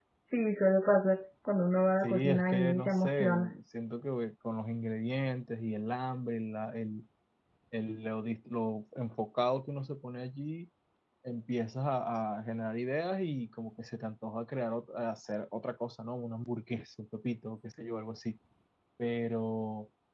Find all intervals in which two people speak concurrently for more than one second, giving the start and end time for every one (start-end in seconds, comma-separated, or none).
2.0-3.5